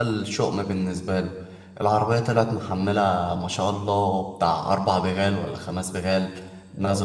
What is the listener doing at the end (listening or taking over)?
listening